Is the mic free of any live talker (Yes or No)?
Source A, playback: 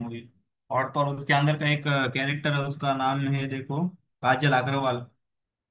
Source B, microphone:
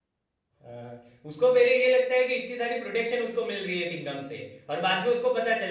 No